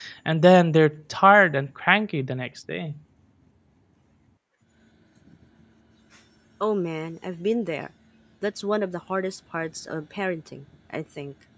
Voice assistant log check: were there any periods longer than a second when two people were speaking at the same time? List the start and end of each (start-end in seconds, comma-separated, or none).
none